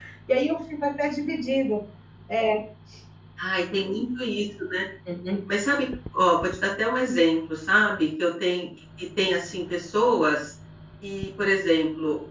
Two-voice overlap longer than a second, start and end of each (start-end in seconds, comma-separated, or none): none